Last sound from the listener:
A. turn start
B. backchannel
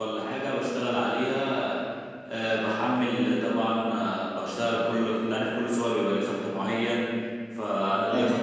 B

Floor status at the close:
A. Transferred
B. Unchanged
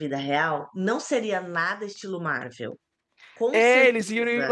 A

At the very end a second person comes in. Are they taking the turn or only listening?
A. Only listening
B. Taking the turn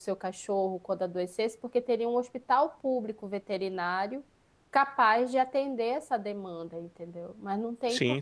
B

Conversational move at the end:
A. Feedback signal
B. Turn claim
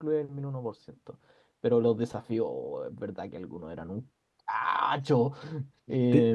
B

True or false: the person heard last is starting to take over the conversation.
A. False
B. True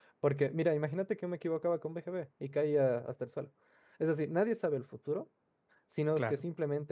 A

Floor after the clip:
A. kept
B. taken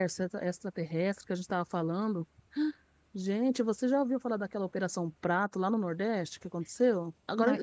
A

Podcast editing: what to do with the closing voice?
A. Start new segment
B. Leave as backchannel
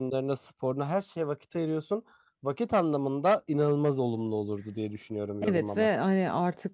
A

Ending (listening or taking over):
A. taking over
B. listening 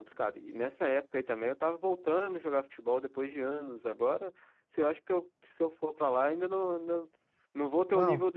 B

